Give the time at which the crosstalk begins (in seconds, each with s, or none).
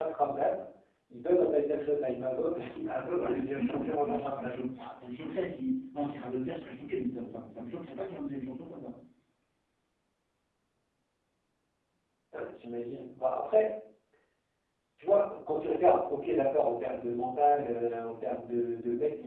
3.1 s